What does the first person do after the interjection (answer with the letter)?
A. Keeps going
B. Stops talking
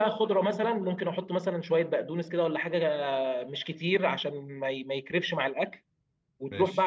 A